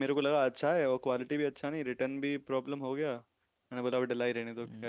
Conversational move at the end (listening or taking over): taking over